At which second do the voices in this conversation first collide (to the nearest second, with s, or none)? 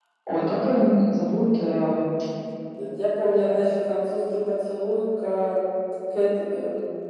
none